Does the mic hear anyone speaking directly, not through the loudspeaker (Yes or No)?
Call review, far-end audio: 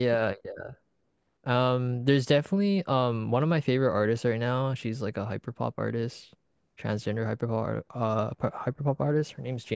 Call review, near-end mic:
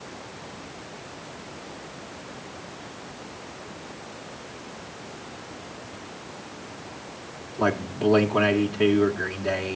Yes